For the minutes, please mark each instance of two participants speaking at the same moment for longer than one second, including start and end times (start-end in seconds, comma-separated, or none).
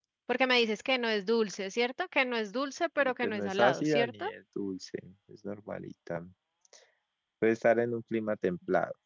3.0-4.2